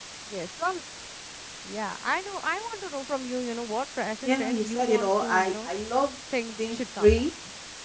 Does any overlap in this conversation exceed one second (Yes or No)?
Yes